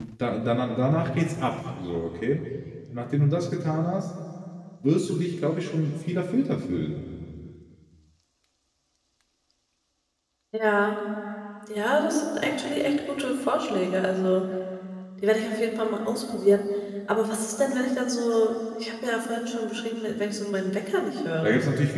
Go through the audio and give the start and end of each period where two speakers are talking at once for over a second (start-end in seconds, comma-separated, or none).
none